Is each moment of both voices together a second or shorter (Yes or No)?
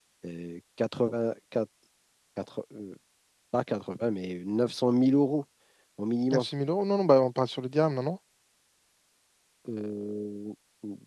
Yes